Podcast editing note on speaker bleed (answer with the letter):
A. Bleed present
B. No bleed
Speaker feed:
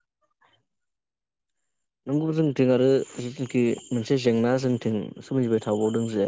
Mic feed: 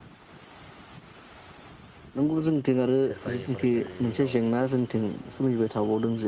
A